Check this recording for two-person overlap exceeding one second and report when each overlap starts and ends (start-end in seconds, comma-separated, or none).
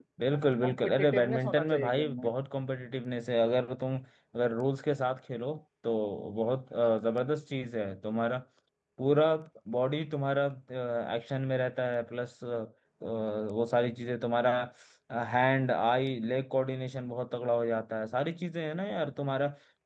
0.6-2.3